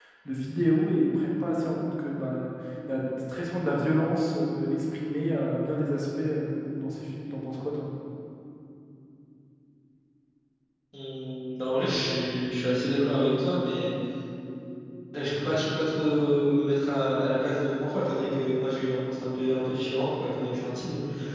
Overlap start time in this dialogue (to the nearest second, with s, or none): none